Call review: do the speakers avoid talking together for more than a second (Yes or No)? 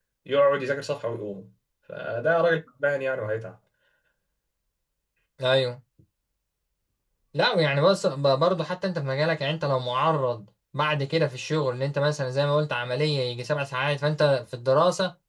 Yes